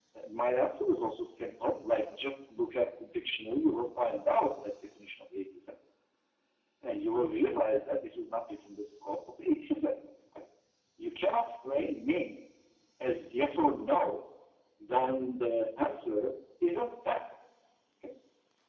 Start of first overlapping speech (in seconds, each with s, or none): none